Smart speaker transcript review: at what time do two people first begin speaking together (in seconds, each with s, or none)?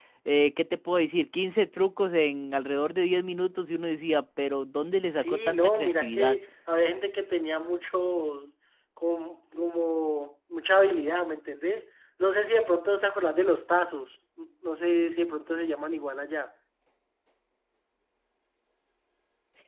5.1 s